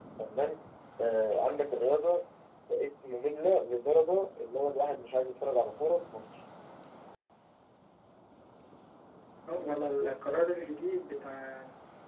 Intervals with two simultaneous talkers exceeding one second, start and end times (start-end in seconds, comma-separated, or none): none